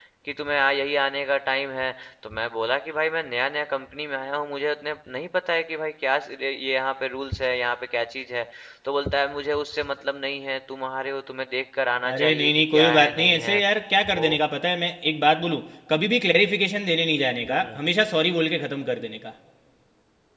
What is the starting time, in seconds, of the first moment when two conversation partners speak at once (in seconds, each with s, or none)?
12.1 s